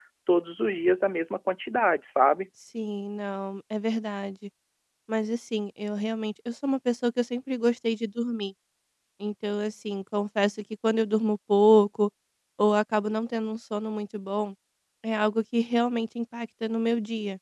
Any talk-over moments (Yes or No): No